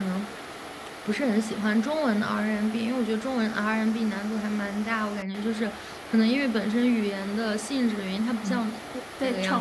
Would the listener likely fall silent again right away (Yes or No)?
No